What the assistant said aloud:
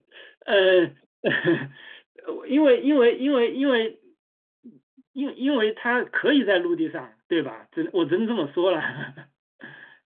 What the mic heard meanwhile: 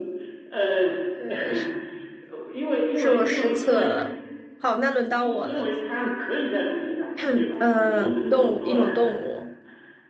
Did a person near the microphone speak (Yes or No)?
Yes